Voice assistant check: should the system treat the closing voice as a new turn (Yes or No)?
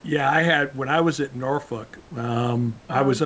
No